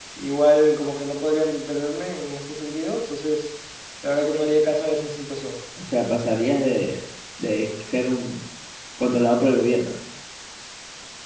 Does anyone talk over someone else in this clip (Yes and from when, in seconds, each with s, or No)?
No